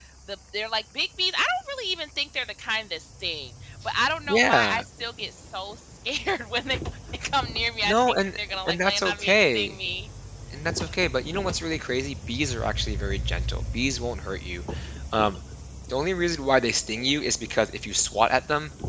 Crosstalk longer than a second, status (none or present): present